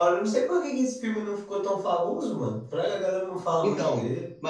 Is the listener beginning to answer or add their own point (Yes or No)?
Yes